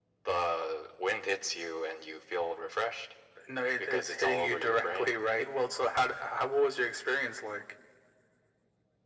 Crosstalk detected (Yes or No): Yes